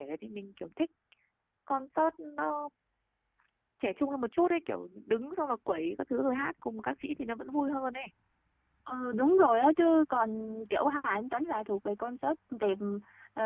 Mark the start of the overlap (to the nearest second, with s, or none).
none